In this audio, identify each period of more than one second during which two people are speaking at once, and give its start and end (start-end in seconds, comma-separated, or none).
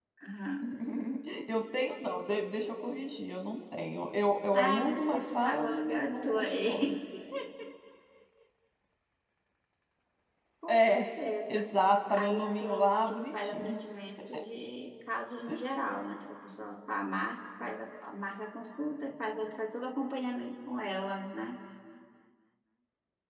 4.5-7.0, 12.1-13.8